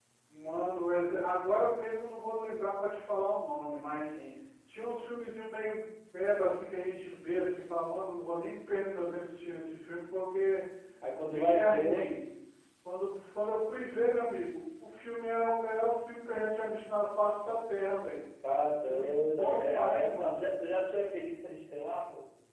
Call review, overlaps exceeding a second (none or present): present